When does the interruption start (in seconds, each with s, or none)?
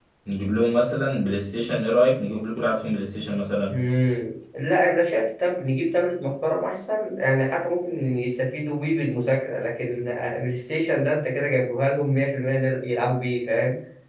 none